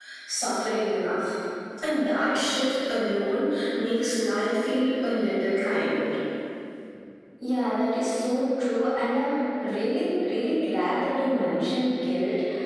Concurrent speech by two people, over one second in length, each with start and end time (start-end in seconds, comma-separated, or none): none